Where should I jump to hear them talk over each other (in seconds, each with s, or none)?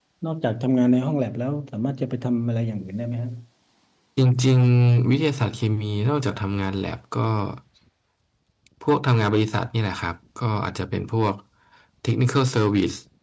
none